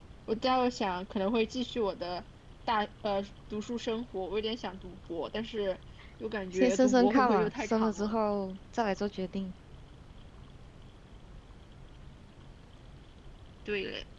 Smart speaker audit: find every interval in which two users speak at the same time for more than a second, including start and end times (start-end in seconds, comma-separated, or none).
6.5-8.1